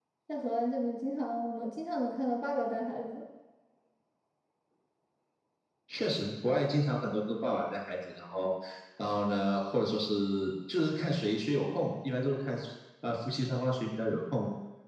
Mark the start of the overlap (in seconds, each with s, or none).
none